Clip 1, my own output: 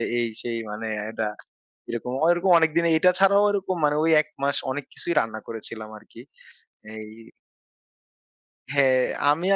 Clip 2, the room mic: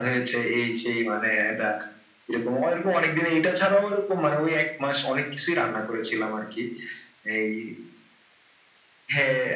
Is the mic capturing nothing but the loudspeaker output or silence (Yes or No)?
Yes